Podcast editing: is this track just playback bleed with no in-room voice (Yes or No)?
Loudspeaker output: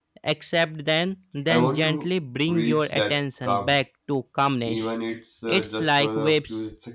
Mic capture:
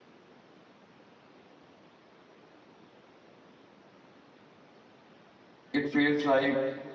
No